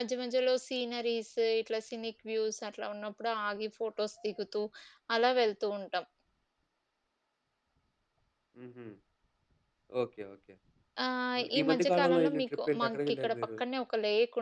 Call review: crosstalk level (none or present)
present